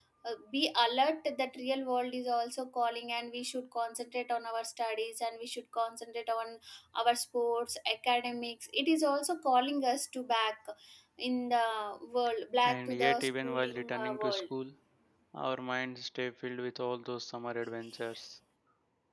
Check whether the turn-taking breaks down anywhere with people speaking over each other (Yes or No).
Yes